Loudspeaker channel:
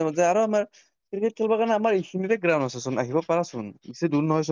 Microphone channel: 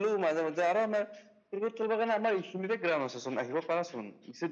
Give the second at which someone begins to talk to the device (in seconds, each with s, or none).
none